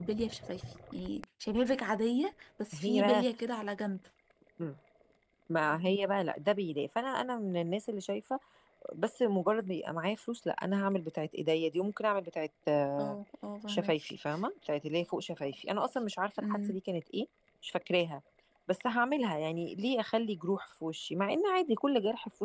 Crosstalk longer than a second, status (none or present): none